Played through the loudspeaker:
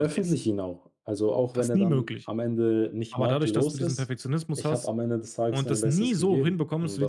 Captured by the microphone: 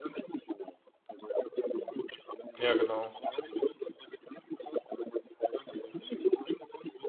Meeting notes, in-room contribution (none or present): present